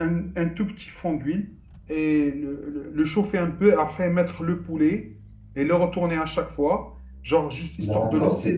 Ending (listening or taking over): taking over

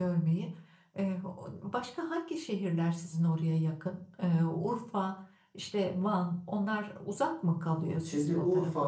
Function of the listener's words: taking over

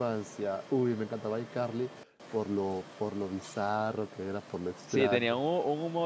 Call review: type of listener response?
taking over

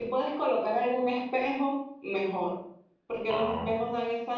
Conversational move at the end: listening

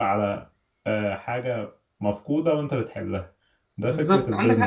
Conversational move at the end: taking over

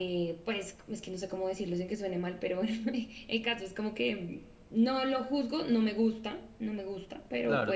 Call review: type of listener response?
taking over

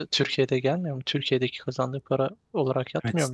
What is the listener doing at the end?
taking over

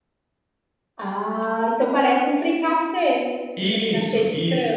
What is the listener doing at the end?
taking over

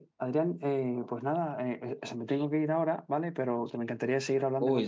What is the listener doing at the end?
taking over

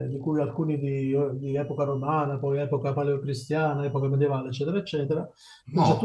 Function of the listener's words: listening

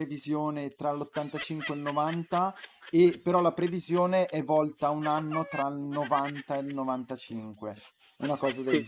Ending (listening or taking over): taking over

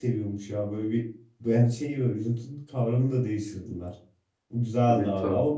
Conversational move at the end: listening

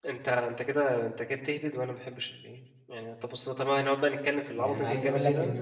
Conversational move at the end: taking over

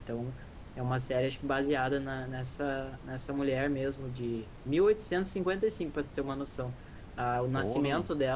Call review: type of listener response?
listening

